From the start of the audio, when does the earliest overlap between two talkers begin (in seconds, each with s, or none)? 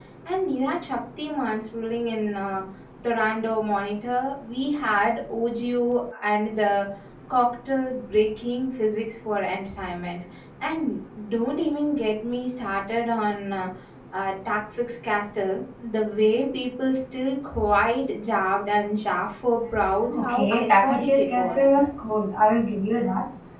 20.1 s